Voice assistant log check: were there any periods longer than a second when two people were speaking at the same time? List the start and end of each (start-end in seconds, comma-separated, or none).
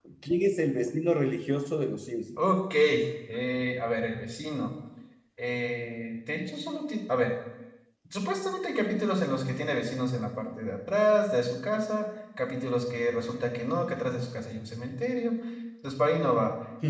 none